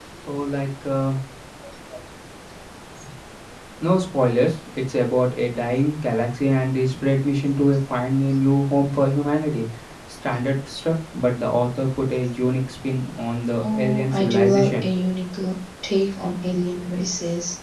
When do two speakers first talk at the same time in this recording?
13.6 s

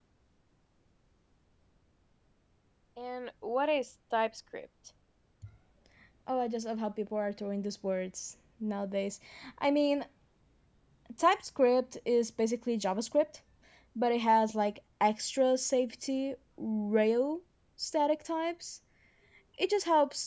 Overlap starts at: none

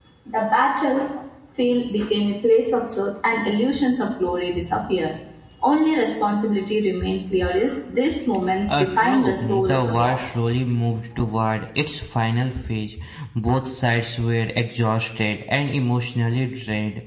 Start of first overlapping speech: 8.7 s

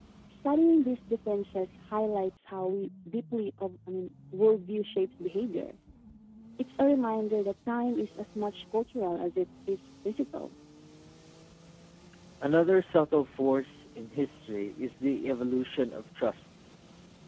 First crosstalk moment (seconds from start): none

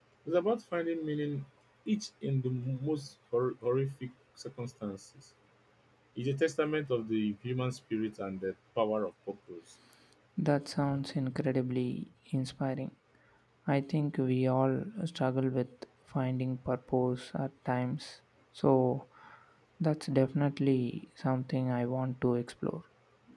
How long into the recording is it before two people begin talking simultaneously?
none

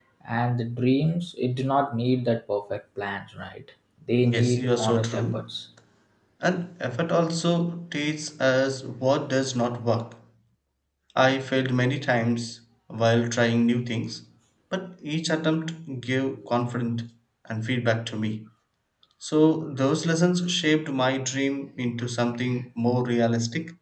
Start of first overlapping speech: 4.2 s

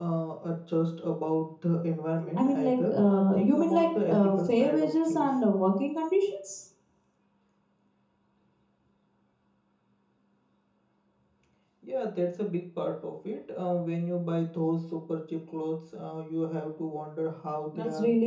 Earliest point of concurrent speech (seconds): 2.4 s

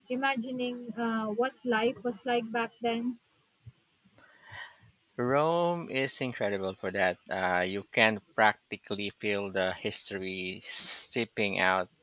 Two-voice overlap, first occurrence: none

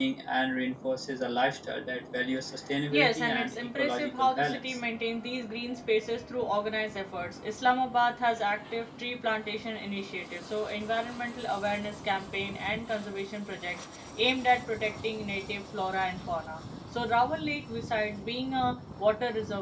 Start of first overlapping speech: 2.9 s

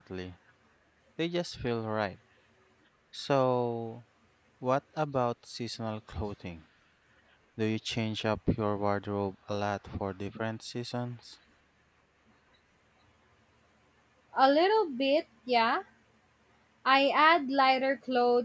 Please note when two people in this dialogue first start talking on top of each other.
none

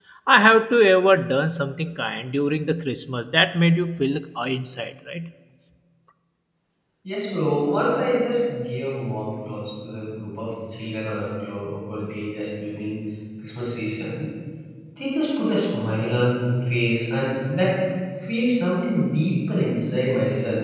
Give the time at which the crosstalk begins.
none

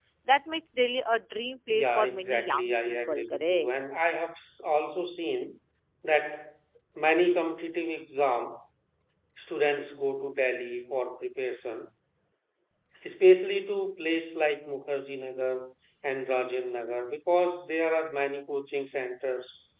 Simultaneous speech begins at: 1.7 s

